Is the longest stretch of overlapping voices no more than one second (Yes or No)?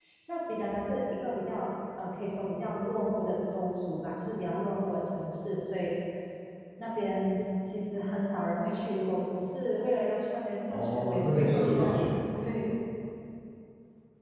No